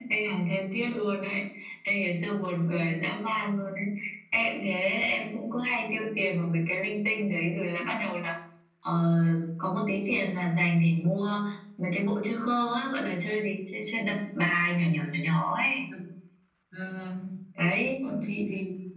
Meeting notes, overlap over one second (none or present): none